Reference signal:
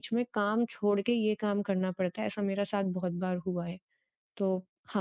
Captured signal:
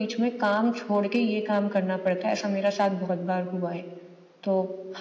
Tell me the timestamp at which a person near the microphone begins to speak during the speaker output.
none

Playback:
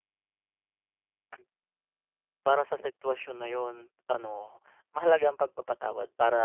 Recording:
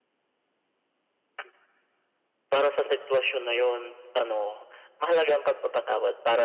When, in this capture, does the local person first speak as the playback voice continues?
none

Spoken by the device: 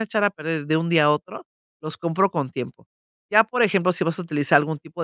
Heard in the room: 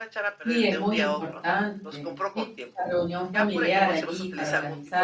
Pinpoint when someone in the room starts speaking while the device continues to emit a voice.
0 s

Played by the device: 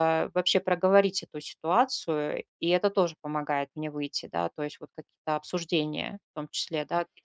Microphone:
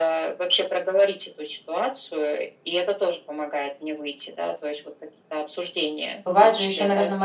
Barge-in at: 6 s

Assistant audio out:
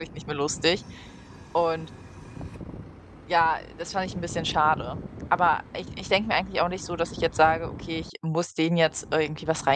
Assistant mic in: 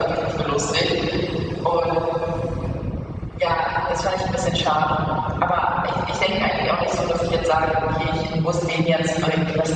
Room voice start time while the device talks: none

